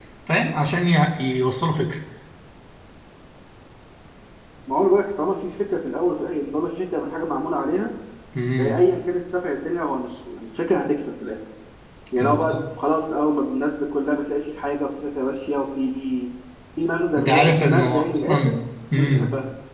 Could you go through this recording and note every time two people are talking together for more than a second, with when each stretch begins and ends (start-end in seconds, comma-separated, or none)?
17.2-18.6